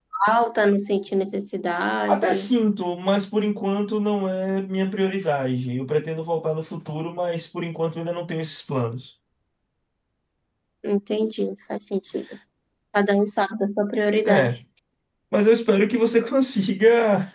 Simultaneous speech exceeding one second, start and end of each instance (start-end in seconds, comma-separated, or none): none